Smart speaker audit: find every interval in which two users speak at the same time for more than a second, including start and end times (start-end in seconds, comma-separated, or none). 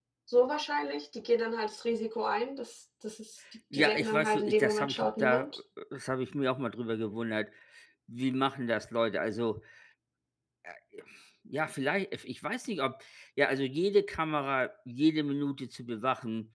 3.7-5.5